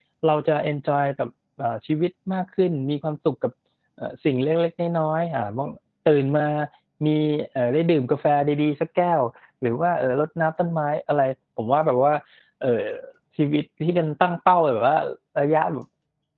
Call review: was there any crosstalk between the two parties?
No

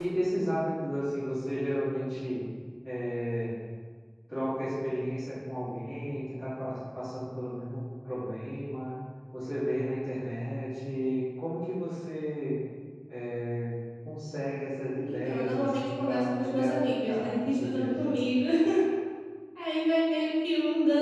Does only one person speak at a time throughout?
No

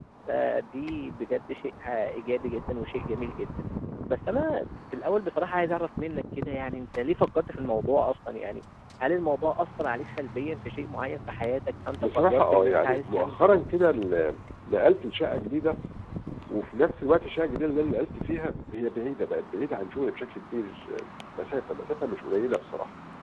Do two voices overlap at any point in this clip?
Yes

